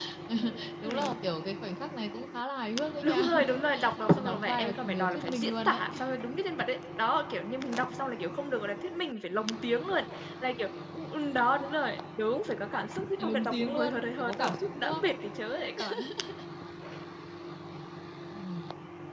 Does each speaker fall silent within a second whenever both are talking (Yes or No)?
No